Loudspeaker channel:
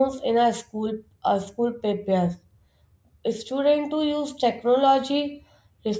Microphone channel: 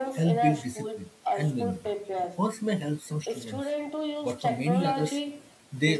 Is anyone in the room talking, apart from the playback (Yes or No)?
Yes